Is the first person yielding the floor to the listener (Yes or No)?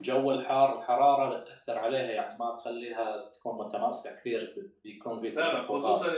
Yes